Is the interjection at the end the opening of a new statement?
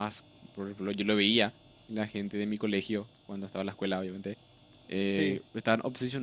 No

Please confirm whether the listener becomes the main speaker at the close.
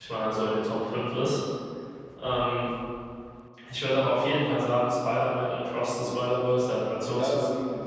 Yes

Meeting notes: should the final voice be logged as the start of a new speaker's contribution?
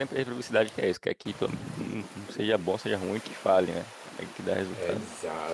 Yes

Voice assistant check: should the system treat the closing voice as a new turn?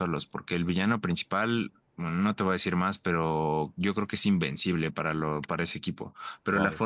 No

